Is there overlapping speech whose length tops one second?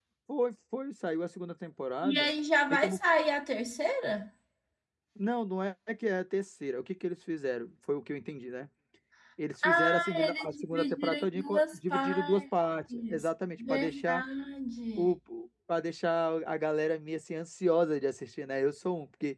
Yes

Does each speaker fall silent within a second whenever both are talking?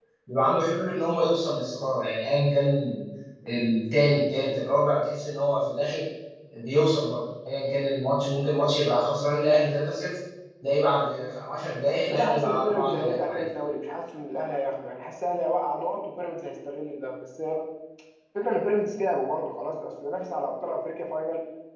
No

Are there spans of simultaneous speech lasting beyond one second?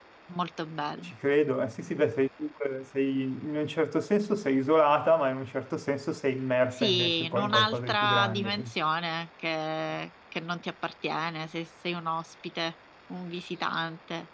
Yes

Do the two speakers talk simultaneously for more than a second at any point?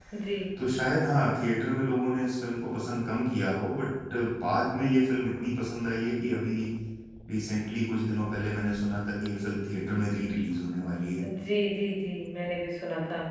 No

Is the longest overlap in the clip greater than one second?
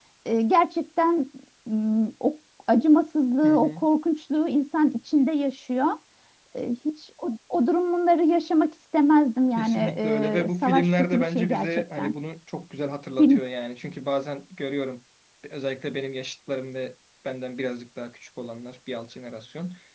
Yes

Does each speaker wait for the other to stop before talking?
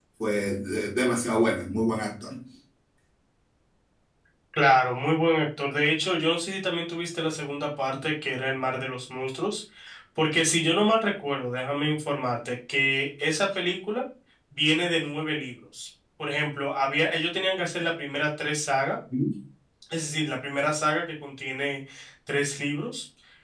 Yes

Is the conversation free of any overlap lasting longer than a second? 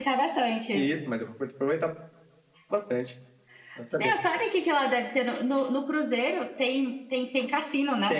Yes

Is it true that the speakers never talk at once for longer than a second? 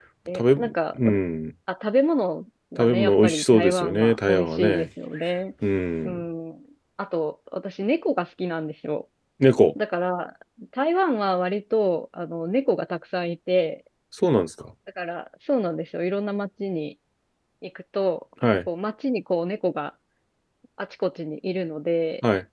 No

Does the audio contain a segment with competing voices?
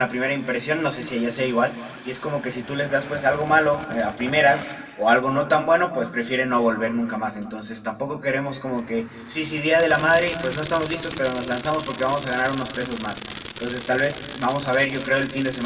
No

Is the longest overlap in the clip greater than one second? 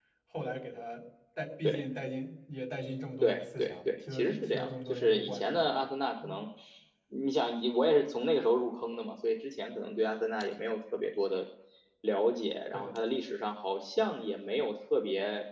Yes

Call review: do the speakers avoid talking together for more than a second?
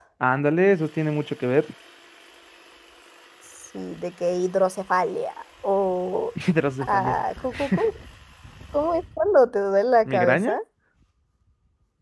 Yes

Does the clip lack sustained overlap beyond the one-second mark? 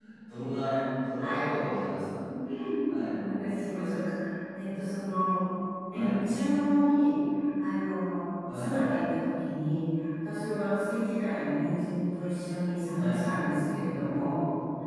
Yes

